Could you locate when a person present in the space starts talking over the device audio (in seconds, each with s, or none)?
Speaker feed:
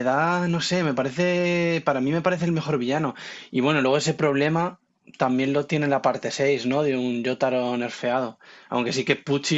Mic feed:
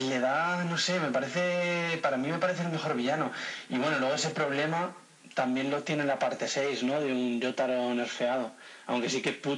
none